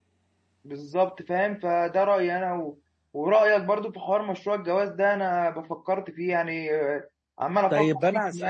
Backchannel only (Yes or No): No